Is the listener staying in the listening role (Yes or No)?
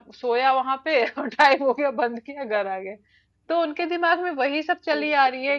Yes